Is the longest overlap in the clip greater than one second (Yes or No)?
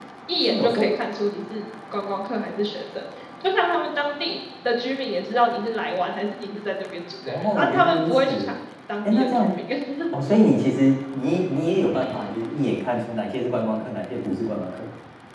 Yes